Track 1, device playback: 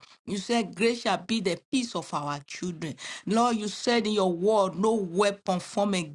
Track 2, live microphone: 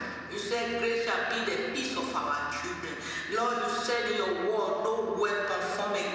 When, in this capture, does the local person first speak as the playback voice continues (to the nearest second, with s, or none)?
none